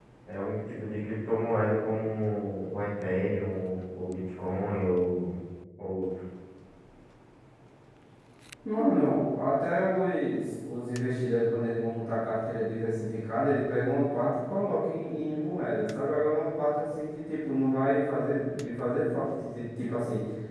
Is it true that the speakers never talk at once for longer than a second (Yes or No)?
Yes